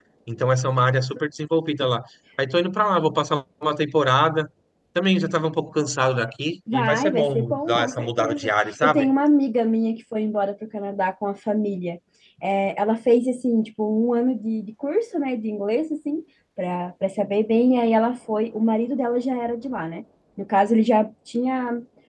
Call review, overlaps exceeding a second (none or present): present